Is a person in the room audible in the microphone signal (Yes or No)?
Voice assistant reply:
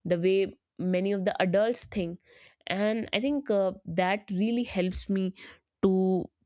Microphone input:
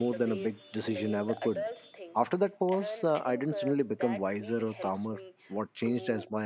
Yes